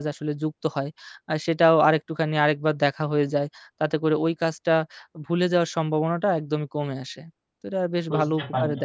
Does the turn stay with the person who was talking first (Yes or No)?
No